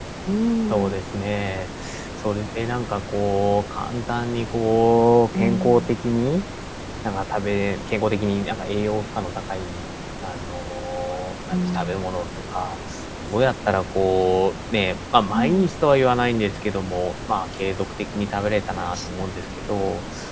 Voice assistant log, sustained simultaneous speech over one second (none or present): none